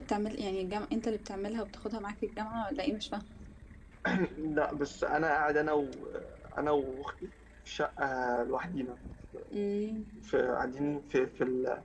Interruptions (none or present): none